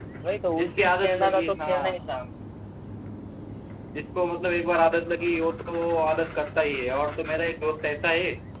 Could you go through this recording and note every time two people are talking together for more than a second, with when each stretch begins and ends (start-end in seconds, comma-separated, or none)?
0.6-2.0